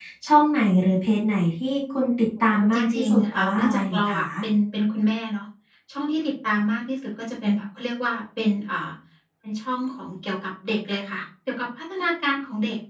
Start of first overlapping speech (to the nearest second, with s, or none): 3 s